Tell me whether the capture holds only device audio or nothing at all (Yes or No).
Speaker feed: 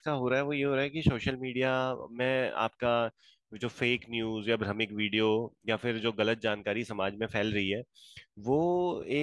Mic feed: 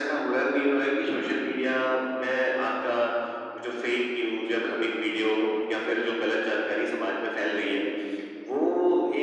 Yes